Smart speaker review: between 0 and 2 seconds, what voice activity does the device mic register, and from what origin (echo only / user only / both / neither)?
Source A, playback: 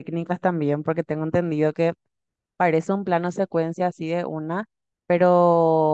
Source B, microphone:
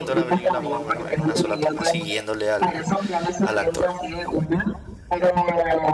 both